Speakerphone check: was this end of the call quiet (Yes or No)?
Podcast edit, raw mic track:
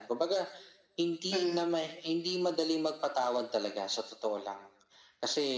No